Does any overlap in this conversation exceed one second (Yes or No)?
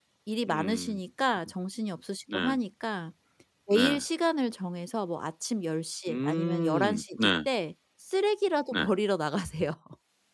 Yes